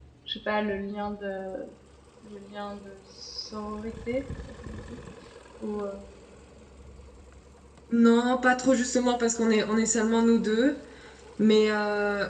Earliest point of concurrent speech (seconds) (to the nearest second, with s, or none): none